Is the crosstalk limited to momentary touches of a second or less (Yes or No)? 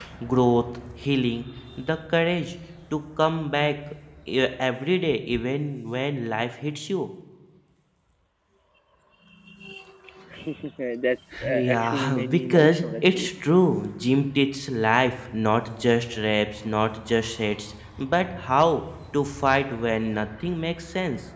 No